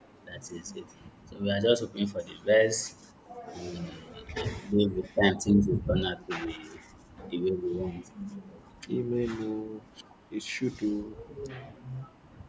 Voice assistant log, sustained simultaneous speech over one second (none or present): none